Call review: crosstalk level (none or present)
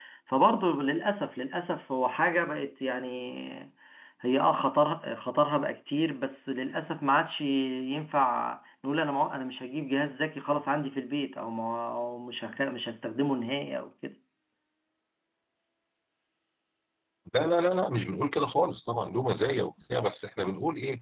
none